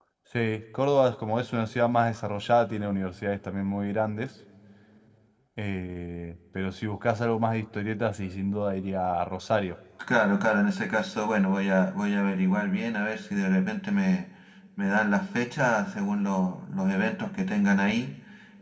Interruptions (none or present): none